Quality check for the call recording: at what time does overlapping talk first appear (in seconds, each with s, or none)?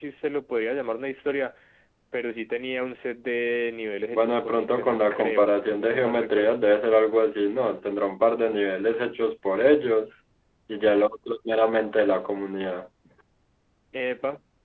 4.1 s